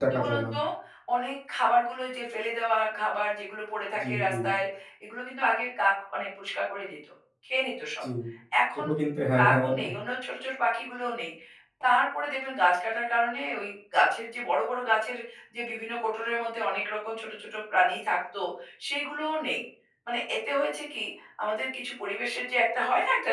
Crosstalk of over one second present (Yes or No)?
No